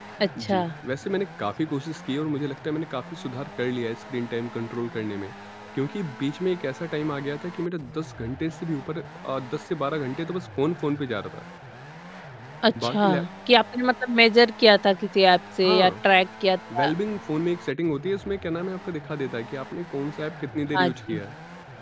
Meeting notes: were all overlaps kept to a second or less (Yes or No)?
Yes